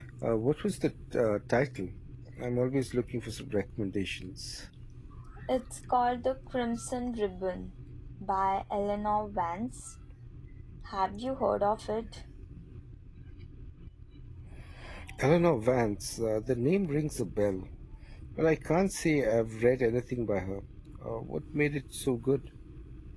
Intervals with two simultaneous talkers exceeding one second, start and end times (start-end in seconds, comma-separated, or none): none